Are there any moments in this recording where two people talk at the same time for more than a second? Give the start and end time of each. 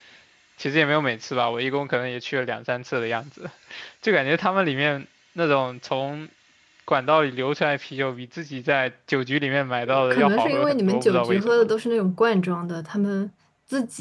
10.1-11.6

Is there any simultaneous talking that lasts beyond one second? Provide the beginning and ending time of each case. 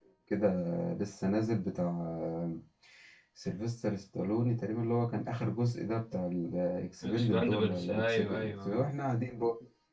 7.0-8.9

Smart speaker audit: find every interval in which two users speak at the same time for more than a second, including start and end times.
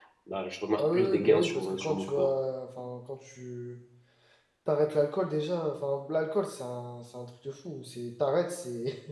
0.8-2.3

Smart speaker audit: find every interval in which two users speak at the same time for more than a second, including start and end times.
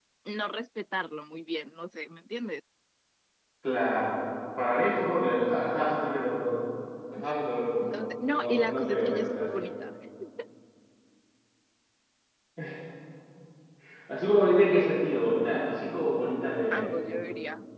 7.8-9.6

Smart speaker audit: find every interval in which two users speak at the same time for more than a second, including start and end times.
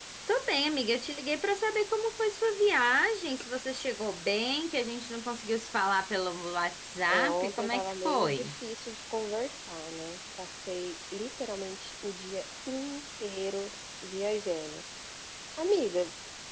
7.1-8.5

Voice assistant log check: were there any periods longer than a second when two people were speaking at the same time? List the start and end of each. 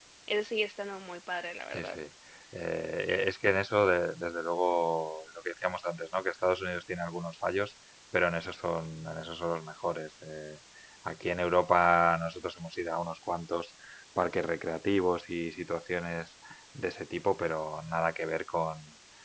none

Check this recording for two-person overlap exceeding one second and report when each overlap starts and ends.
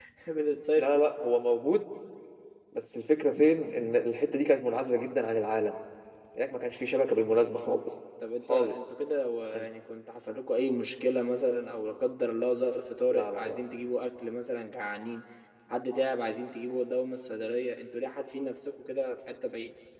none

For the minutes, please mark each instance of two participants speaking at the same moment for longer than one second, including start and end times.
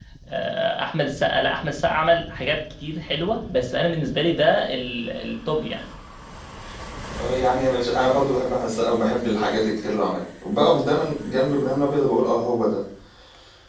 none

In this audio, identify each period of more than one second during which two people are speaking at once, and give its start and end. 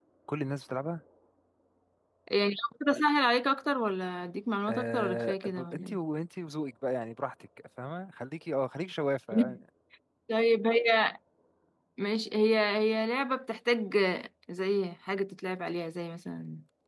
4.7-6.0

